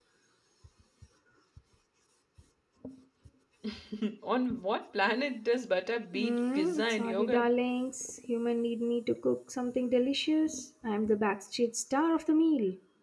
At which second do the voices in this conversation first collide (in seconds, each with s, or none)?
6.1 s